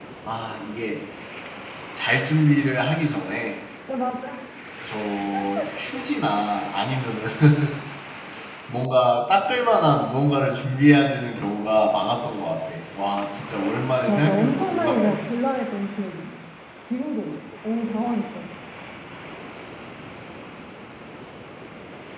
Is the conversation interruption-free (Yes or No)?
No